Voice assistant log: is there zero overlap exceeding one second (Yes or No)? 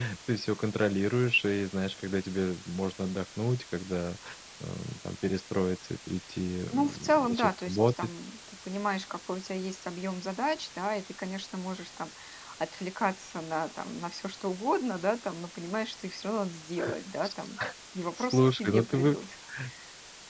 No